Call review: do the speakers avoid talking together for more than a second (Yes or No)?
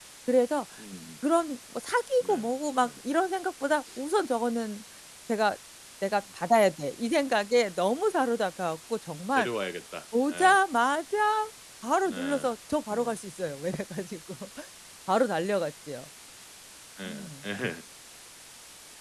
Yes